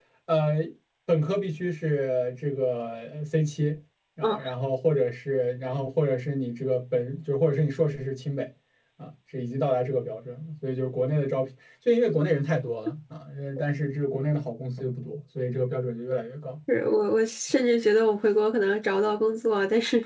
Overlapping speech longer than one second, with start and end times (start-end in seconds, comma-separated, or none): none